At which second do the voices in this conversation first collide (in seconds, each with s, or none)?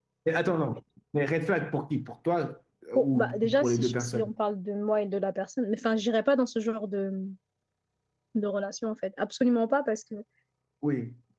3.0 s